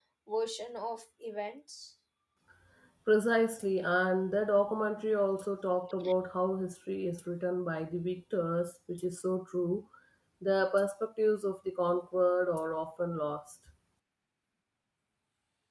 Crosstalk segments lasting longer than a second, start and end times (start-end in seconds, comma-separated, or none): none